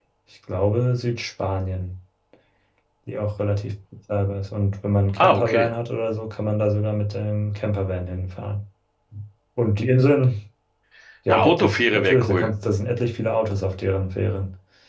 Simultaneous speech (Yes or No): Yes